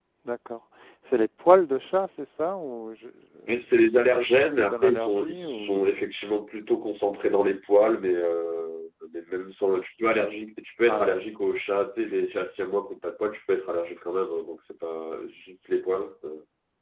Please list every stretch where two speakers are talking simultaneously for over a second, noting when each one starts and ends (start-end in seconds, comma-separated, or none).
4.6-5.9